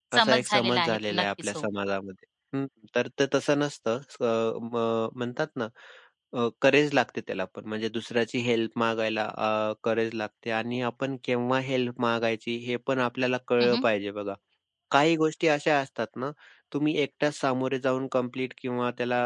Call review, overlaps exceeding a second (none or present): present